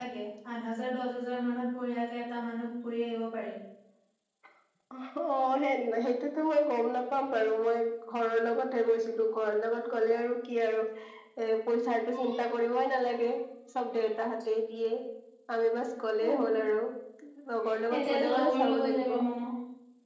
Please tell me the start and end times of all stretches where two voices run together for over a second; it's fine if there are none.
17.9-19.2

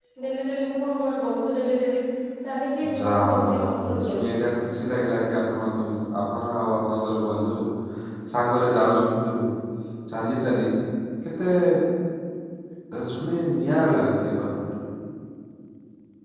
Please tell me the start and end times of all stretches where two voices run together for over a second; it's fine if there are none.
3.0-4.2

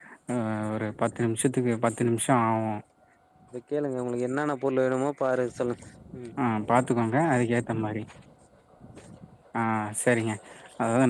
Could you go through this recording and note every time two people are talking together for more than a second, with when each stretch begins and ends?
none

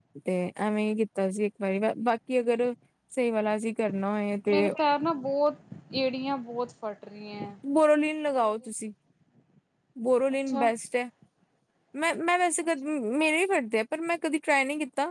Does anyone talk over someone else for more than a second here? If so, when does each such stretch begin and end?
none

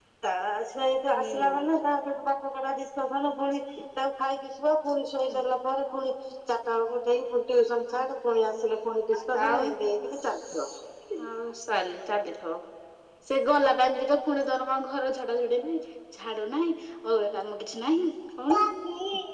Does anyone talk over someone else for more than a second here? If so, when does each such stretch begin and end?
none

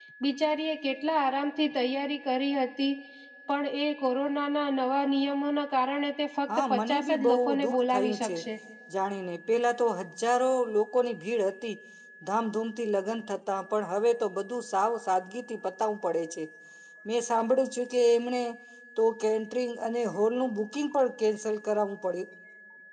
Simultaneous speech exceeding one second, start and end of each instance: 6.6-8.4

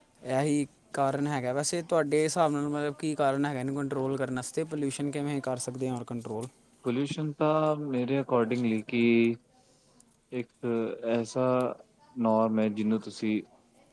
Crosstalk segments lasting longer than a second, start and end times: none

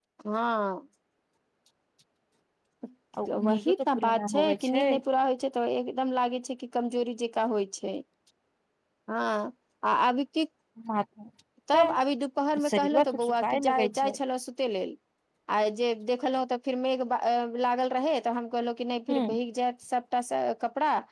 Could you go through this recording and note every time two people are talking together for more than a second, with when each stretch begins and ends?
3.5-4.9, 12.7-14.2

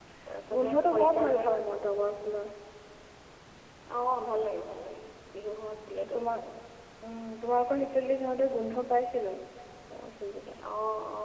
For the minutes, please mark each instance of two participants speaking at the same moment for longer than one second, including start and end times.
0.6-1.8

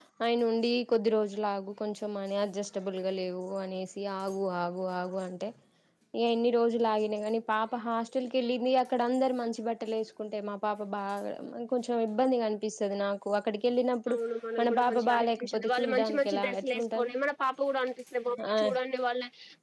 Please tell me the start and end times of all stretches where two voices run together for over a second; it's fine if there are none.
14.6-17.1

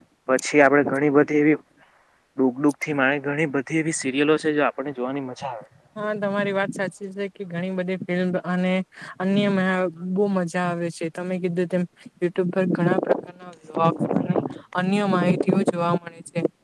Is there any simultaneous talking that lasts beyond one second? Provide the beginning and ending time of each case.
none

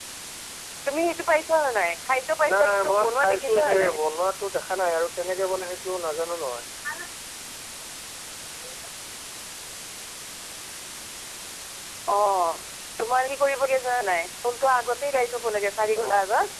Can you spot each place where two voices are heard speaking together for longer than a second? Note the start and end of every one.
2.5-3.9

